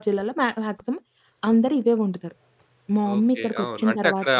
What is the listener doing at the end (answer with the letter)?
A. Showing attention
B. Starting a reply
B